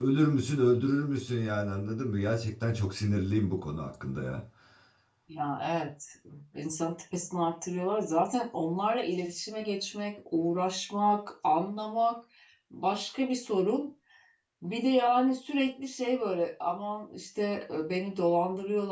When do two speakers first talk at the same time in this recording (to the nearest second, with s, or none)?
none